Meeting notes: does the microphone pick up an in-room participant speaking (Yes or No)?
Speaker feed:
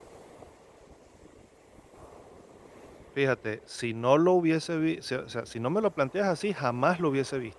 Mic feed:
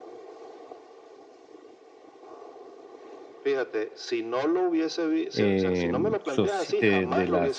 Yes